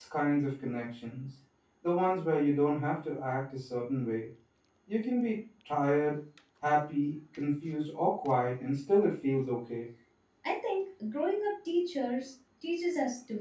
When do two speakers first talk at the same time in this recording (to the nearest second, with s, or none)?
none